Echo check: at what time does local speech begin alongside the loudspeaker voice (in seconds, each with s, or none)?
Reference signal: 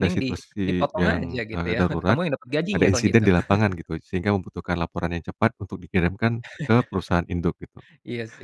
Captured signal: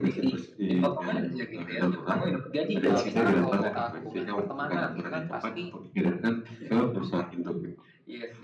2.9 s